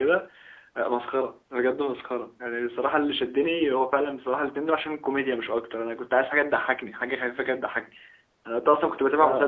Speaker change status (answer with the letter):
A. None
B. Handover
A